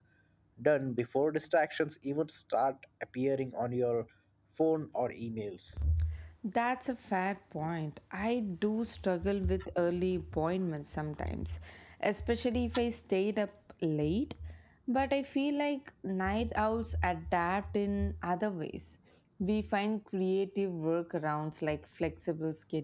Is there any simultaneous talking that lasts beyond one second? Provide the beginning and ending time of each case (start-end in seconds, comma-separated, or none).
none